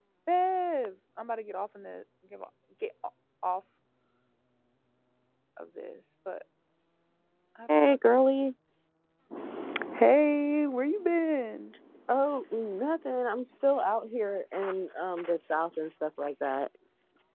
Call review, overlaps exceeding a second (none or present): none